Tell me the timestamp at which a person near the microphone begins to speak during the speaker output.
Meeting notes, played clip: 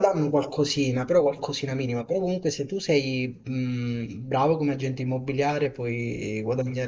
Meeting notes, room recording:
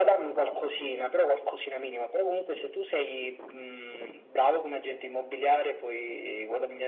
none

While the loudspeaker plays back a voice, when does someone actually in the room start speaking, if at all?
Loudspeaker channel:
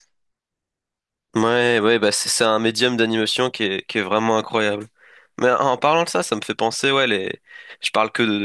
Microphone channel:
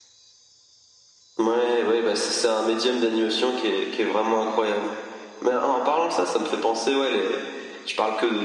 none

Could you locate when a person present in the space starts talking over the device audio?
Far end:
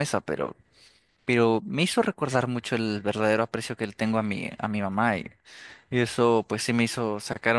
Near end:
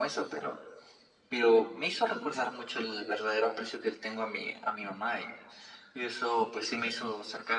none

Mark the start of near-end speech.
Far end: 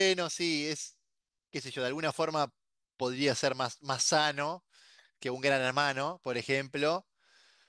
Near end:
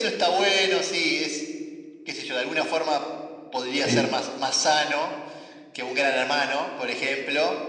4 s

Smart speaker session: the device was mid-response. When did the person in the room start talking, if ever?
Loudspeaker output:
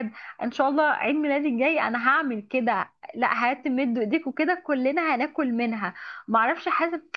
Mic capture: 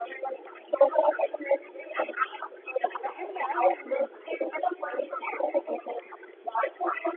3 s

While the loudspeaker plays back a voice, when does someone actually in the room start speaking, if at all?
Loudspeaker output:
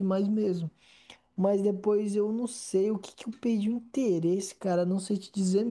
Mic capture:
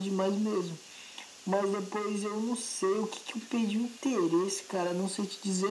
none

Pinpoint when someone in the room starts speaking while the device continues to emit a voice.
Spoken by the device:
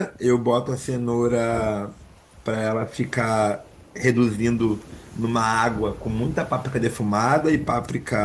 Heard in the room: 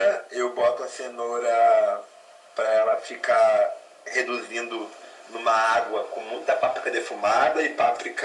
none

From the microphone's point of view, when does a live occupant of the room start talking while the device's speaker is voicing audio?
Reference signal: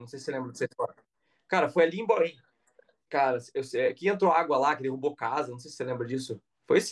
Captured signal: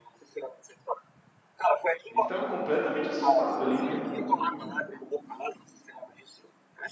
2 s

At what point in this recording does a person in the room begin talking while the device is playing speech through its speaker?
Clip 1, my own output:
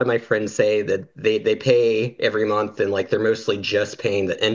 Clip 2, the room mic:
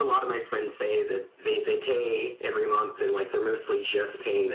none

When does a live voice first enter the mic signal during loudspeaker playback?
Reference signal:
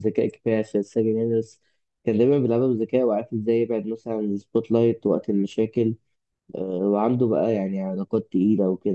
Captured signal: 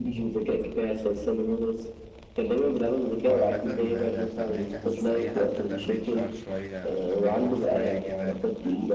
3 s

